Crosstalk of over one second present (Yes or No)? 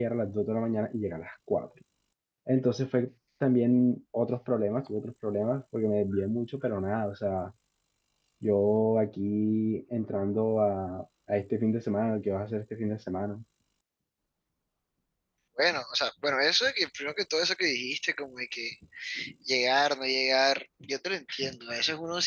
No